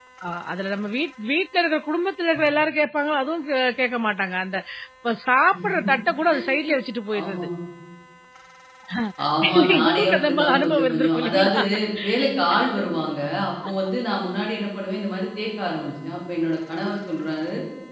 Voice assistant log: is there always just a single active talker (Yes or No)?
No